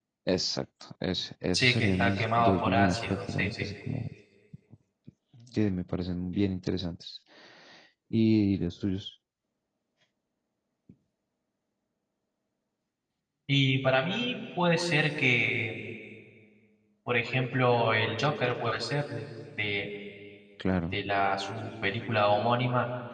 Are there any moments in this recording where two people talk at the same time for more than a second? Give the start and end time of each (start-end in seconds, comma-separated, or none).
1.5-3.6